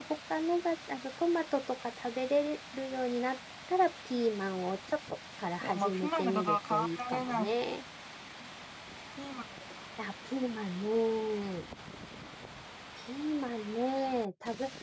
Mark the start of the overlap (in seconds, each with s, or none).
5.6 s